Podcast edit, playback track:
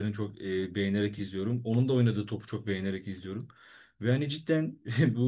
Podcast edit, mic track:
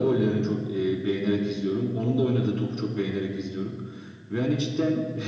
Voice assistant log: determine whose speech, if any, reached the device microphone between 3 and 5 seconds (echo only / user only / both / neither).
echo only